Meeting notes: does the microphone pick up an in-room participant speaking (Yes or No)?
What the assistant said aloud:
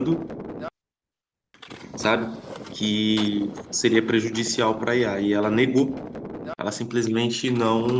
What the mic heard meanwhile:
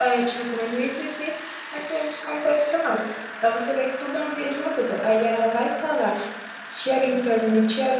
Yes